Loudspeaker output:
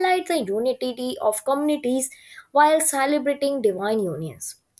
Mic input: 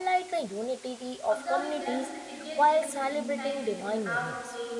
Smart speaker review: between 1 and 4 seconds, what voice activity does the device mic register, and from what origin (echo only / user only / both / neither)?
both